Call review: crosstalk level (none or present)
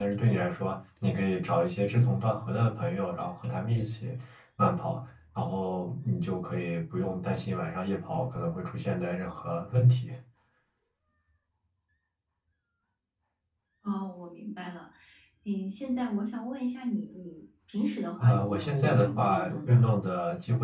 present